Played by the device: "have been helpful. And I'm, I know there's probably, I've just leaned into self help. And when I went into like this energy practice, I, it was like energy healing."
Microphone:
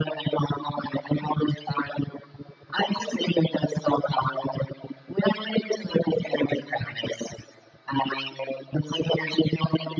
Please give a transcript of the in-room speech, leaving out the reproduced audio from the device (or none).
none